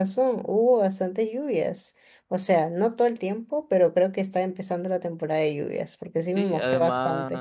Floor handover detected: Yes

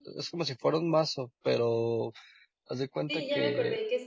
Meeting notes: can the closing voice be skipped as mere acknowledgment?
No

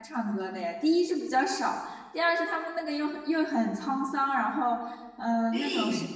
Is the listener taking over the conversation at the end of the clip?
No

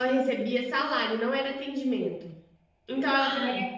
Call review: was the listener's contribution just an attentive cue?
Yes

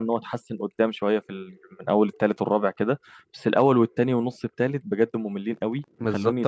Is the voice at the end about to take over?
Yes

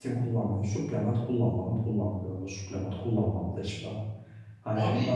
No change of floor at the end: Yes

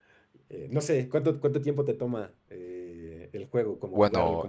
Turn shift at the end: Yes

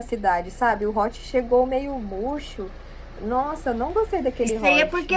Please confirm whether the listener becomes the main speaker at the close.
Yes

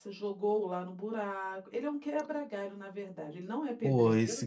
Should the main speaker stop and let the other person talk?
Yes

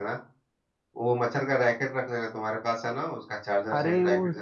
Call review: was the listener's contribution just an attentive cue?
No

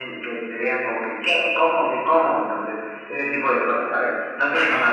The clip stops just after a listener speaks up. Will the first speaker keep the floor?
Yes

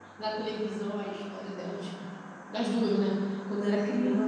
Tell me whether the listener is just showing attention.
Yes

